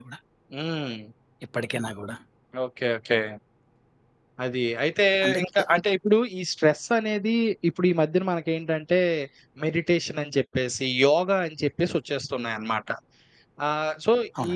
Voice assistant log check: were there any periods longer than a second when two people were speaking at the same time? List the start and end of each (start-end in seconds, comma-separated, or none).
none